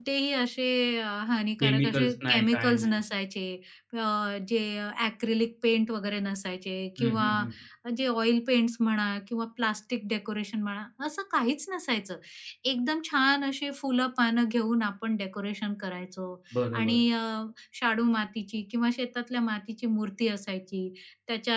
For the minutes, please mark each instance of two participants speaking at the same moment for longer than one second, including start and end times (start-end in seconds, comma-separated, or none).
1.6-3.0